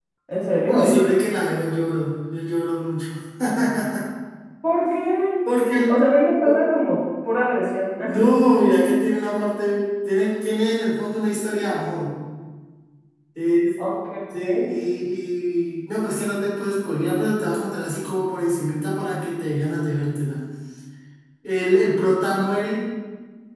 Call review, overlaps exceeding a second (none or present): none